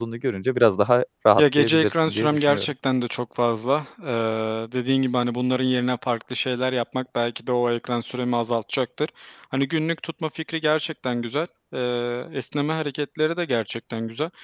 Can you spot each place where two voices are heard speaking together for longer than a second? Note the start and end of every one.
1.4-2.7

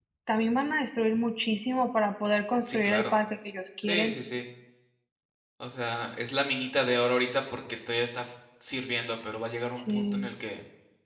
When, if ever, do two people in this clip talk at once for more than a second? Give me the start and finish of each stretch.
none

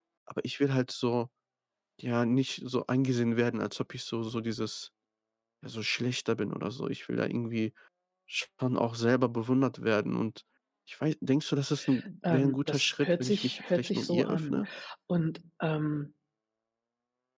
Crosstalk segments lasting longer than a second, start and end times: 12.3-14.6

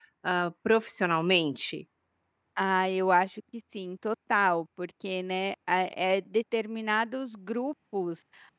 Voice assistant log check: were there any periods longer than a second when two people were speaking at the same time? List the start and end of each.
none

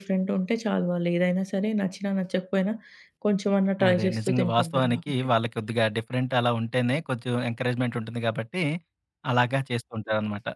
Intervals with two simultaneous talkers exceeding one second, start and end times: 3.9-5.3

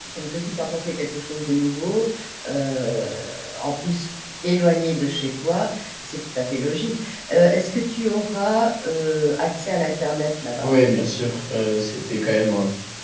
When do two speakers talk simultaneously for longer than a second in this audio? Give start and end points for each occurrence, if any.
none

